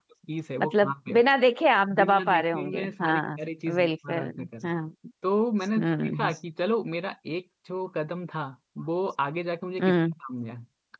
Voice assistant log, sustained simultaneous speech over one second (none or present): present